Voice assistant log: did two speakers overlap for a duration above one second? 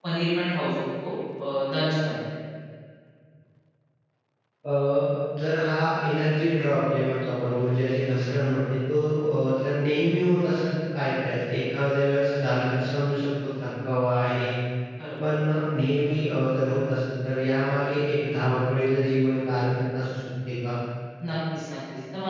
No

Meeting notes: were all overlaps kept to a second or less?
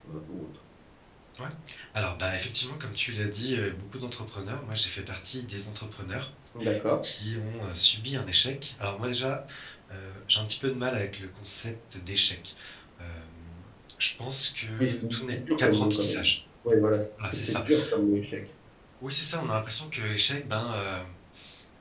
No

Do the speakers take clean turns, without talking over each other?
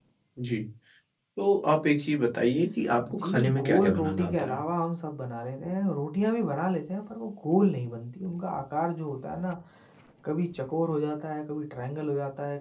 No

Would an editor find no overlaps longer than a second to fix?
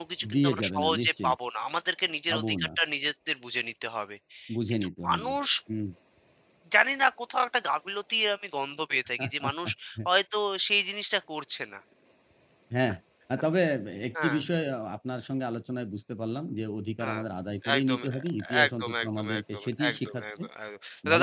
No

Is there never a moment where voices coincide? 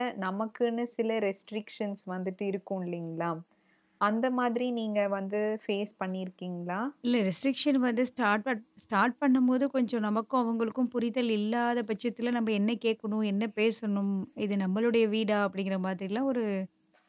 Yes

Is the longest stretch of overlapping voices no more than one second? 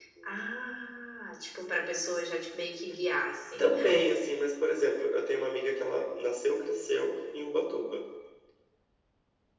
Yes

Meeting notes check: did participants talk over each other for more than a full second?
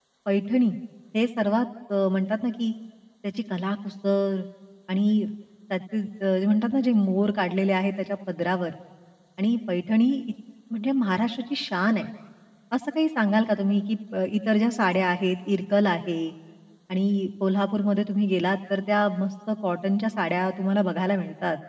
No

